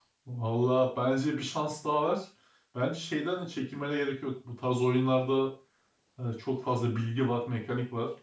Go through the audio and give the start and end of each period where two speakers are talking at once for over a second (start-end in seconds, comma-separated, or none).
none